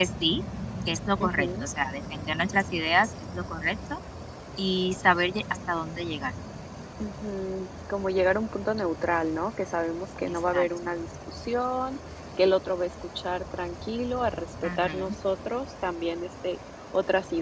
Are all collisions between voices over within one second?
Yes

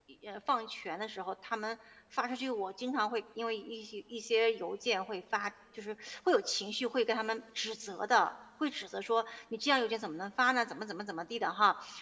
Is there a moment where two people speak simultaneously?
No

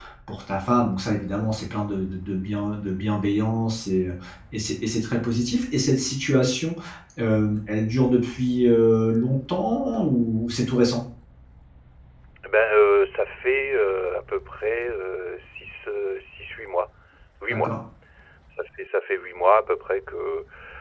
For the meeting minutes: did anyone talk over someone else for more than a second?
No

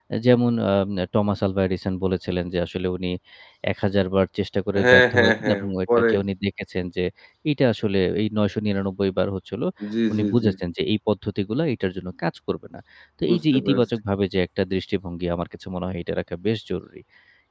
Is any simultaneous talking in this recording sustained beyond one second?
Yes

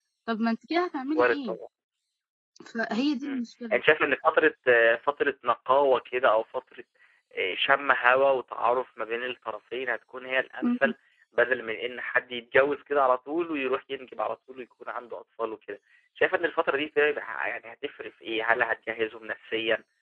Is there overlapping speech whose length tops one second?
No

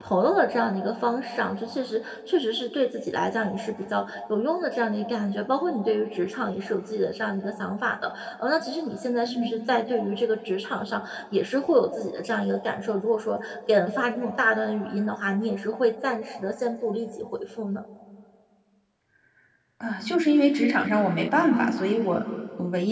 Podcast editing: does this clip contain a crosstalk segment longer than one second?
No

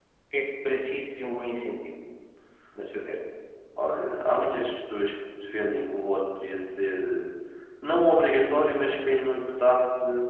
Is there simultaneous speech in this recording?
No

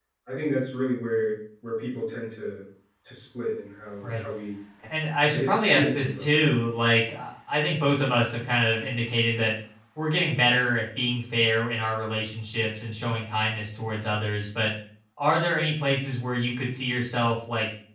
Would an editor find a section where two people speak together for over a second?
Yes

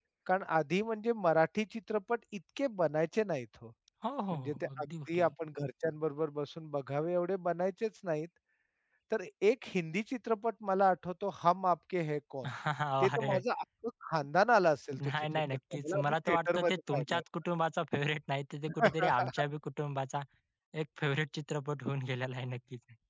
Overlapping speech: Yes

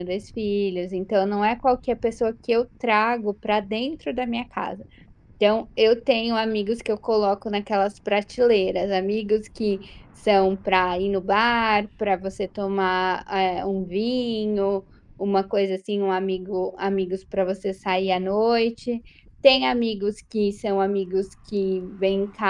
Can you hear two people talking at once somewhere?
No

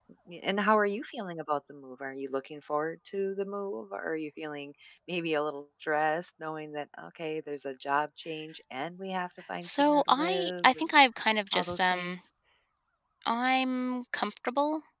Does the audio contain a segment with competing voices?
Yes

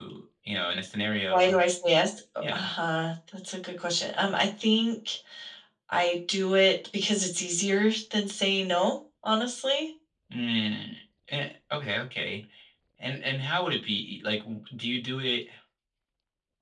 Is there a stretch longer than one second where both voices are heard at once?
No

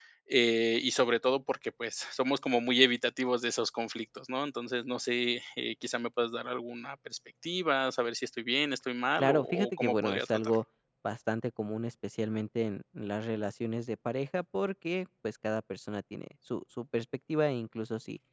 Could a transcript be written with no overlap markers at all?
No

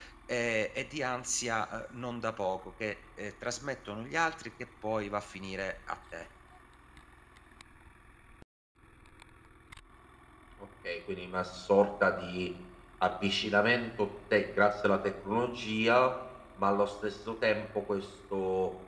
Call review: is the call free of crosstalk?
Yes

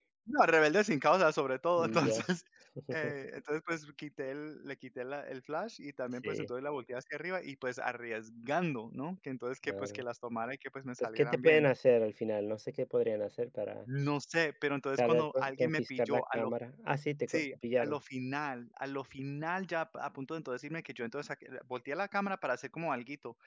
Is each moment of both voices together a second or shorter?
No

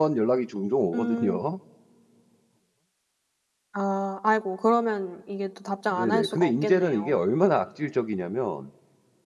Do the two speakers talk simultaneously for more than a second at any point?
Yes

